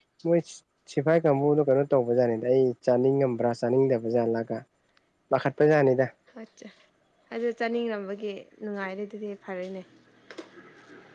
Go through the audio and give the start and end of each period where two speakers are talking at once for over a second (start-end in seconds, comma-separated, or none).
none